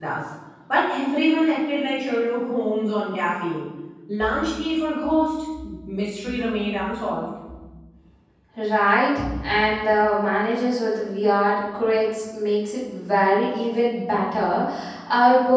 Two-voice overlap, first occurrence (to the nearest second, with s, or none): none